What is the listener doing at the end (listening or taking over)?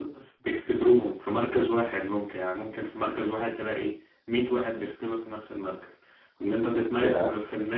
listening